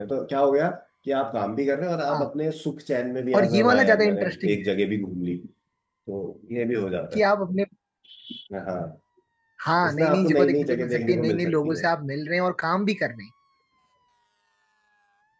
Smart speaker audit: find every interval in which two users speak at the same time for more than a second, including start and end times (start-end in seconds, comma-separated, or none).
3.3-4.7, 9.8-11.8